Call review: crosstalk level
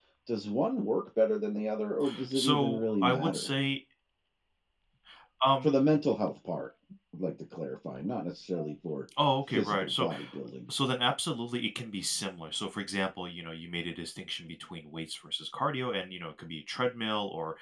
present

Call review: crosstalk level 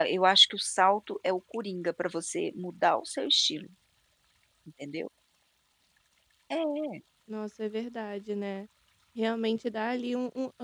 none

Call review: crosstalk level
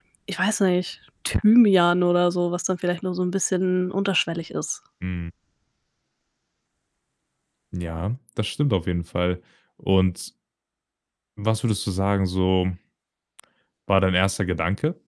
none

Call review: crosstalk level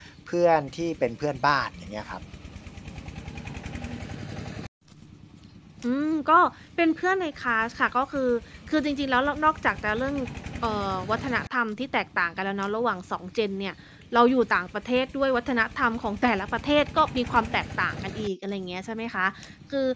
none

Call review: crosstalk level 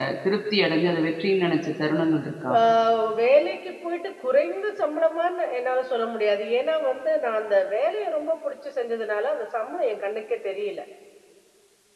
none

